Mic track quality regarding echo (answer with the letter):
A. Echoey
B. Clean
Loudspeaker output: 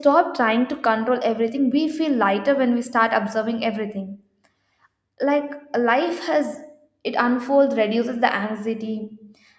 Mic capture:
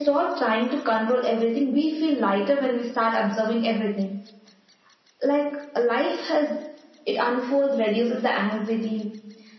A